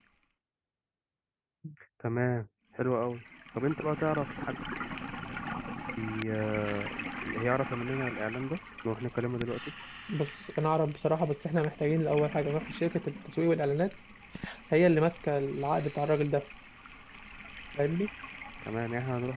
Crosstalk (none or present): none